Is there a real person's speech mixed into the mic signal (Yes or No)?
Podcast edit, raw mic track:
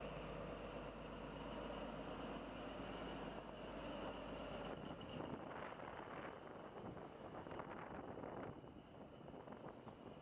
No